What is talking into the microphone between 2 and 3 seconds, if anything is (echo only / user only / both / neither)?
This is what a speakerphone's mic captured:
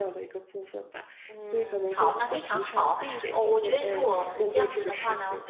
both